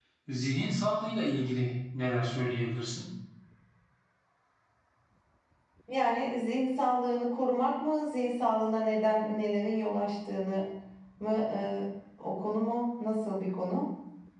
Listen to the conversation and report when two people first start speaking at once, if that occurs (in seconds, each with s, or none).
none